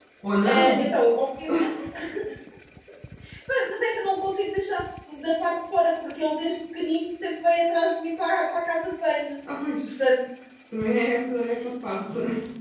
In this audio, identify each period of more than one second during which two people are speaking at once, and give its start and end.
none

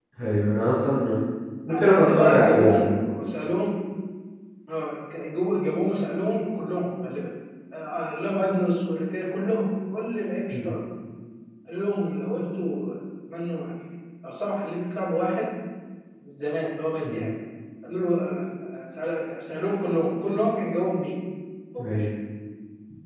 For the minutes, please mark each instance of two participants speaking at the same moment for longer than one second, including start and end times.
1.7-2.9

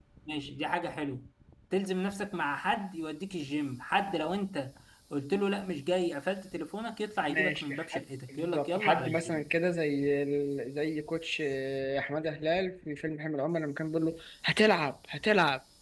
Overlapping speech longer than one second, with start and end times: 7.3-9.4

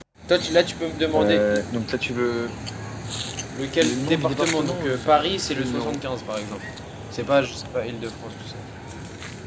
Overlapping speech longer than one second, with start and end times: 3.8-5.0

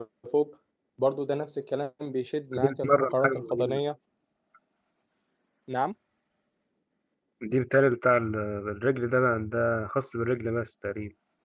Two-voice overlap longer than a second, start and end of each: 2.6-3.8

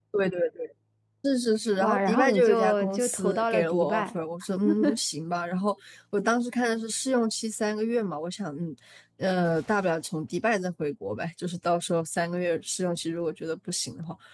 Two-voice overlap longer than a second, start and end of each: 1.8-4.1

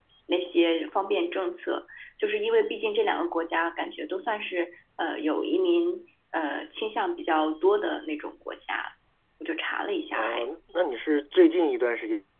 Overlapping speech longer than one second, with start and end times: none

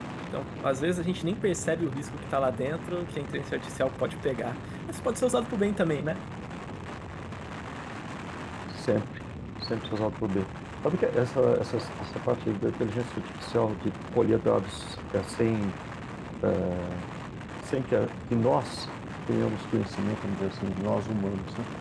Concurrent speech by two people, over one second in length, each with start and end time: none

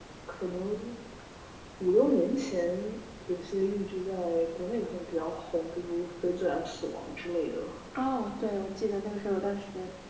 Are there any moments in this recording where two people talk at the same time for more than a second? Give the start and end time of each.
none

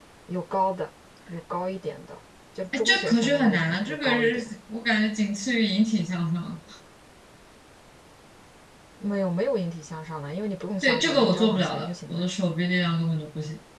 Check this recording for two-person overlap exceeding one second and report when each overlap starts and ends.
2.7-4.5, 10.8-12.3

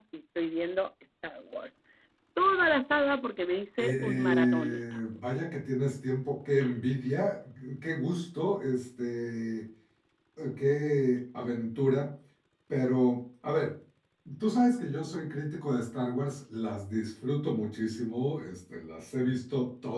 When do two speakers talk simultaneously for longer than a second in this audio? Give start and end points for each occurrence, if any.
3.8-5.0

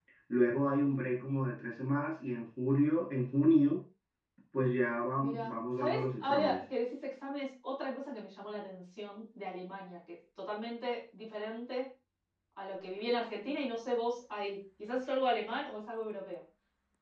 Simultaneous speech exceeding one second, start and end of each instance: 5.2-6.6

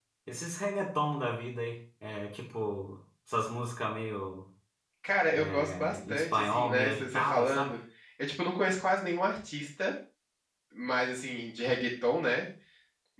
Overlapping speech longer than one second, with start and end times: 5.6-7.8

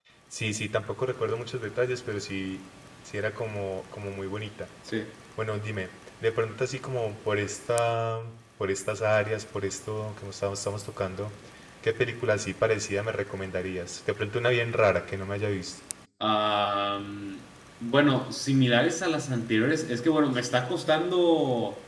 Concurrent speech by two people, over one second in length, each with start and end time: none

